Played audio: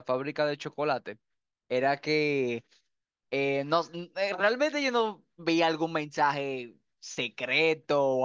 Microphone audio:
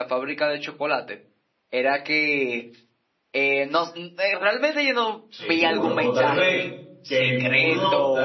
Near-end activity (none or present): present